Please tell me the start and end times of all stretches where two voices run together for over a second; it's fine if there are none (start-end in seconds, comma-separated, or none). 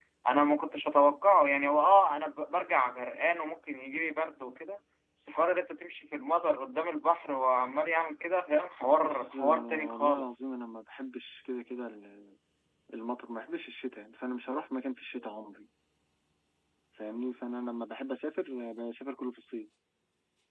8.9-10.4